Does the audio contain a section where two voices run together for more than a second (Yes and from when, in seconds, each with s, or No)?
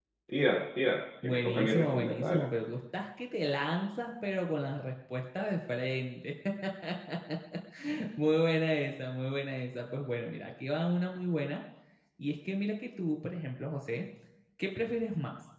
Yes, from 1.2 s